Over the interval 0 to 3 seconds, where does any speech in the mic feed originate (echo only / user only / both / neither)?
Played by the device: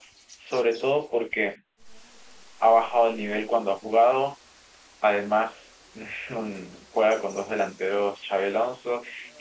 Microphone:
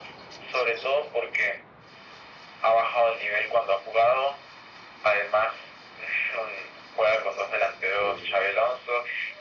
echo only